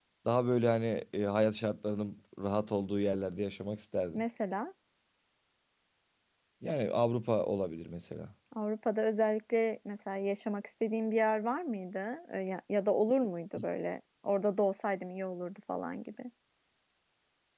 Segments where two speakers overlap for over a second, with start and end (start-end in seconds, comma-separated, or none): none